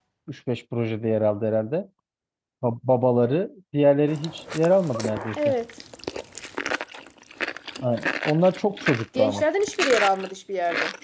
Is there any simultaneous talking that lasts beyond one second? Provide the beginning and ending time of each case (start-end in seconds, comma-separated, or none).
none